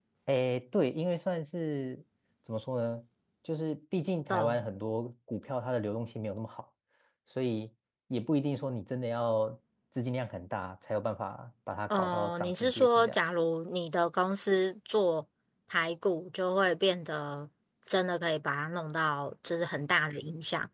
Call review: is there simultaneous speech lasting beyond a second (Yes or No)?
Yes